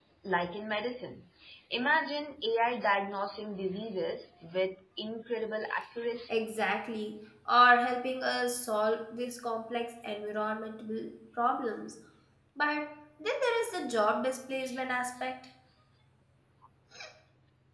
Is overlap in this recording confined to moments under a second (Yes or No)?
Yes